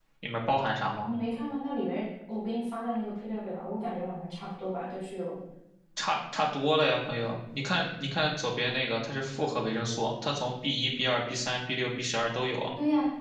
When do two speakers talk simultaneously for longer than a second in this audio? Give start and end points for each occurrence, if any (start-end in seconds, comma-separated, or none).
none